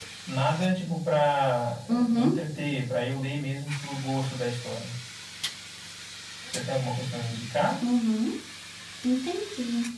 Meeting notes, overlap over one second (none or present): none